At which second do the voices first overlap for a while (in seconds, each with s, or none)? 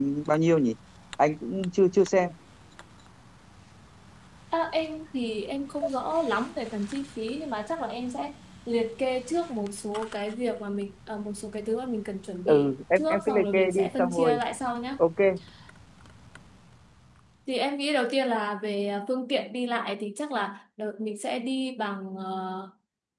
12.4 s